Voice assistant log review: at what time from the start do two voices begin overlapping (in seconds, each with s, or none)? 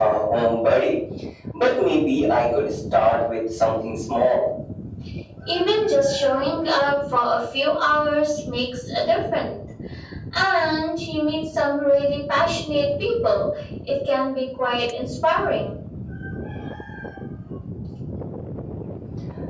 none